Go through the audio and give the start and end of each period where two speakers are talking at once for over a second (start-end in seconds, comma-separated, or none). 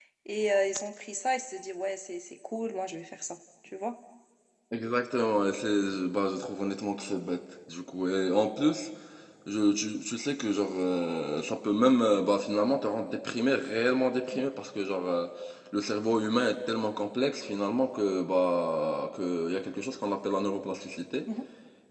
none